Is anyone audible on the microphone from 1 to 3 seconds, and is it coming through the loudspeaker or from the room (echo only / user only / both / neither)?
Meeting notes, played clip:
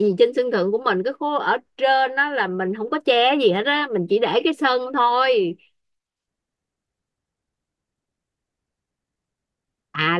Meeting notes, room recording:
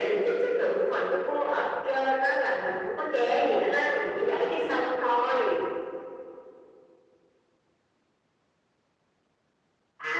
echo only